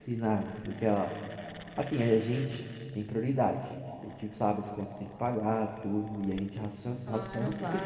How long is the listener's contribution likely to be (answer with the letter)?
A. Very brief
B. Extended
A